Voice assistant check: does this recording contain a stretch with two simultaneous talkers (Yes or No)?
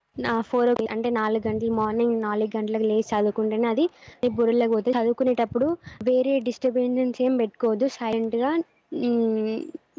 No